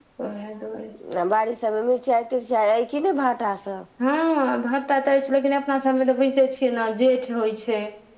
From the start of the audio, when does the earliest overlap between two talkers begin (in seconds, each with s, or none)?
none